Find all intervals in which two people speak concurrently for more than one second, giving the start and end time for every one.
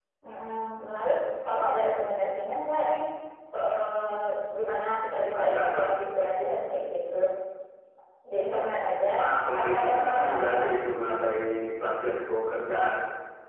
9.6-10.8

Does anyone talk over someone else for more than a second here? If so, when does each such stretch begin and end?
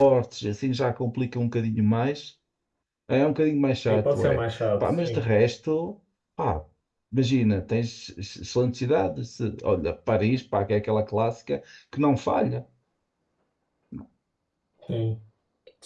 none

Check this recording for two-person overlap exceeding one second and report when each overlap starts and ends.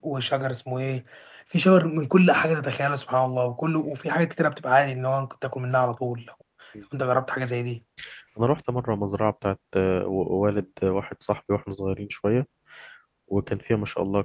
none

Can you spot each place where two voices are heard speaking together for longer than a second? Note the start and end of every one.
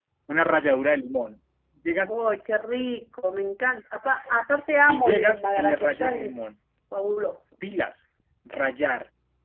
4.9-6.3

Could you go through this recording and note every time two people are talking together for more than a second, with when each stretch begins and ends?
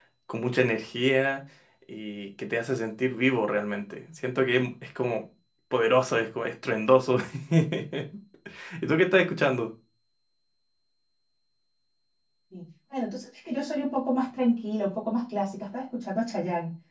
none

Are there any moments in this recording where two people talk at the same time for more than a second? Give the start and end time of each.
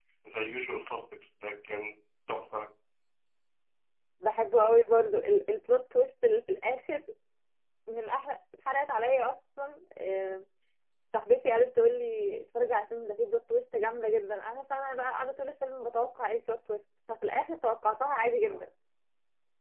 none

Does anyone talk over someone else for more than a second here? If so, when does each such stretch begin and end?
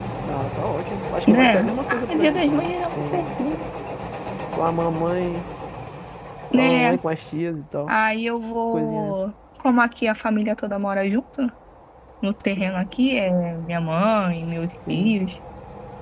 1.3-3.2

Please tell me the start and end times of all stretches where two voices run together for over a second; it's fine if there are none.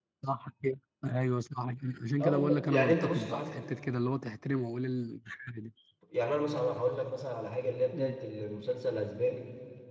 2.2-3.6

